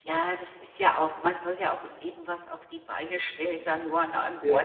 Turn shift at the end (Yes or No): No